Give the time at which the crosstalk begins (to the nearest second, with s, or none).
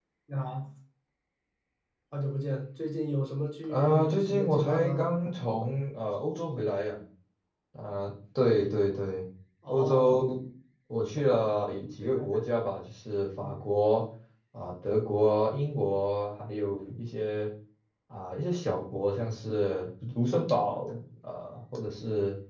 4 s